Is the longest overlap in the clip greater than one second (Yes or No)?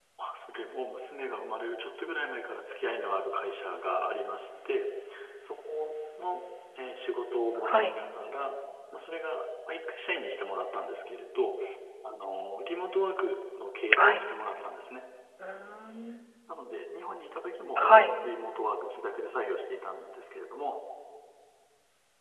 No